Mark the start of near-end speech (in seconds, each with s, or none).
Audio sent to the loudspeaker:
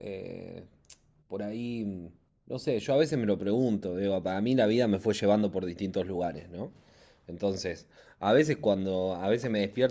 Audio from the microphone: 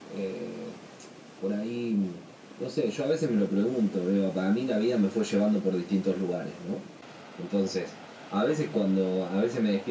none